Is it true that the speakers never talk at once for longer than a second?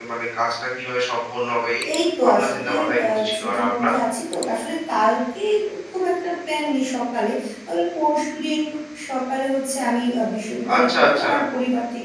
No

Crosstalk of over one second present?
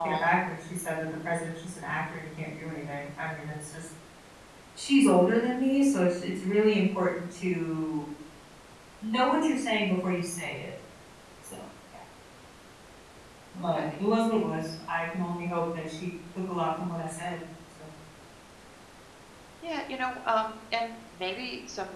No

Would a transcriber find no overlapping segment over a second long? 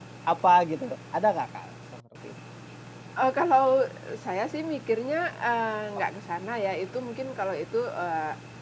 Yes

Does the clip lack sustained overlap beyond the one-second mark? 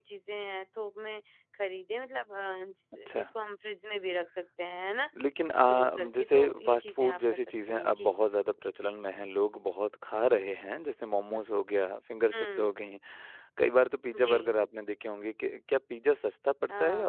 No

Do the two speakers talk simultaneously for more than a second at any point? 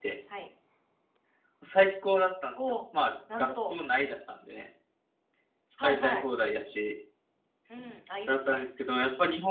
No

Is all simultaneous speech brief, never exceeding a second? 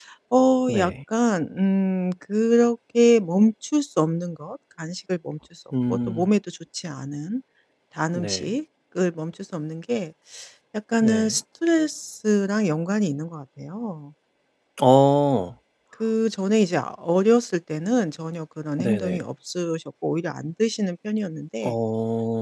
Yes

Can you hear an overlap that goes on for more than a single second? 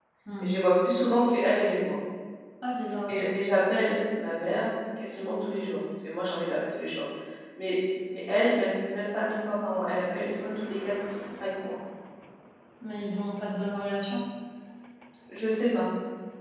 No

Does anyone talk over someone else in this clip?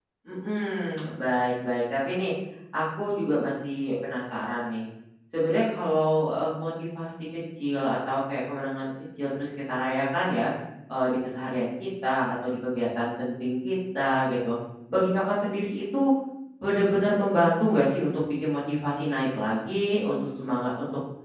No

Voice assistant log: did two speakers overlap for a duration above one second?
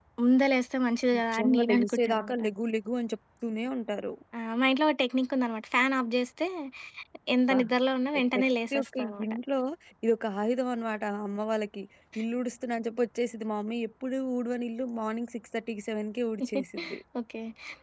Yes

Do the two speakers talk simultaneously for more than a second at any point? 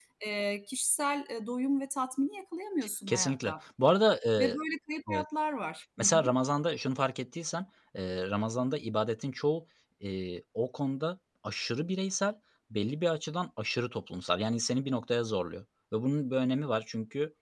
No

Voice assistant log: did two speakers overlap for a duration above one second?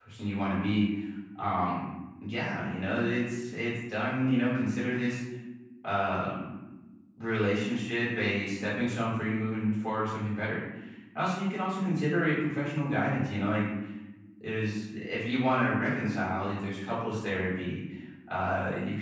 No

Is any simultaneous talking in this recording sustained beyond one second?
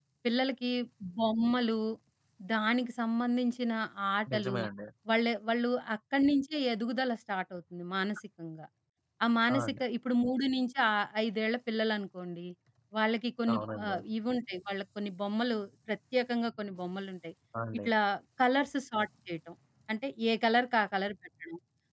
No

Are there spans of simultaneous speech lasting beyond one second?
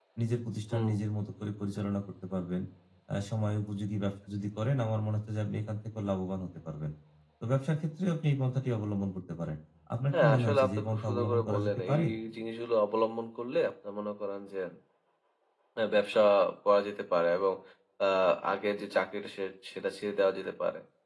Yes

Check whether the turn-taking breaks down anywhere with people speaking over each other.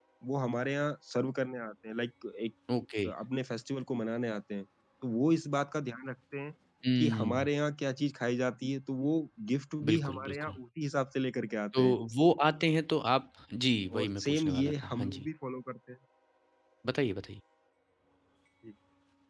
Yes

